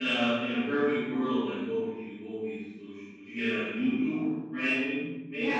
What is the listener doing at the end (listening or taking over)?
taking over